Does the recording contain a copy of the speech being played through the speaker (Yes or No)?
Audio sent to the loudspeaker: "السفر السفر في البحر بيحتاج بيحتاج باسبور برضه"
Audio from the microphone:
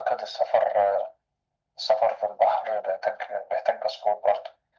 Yes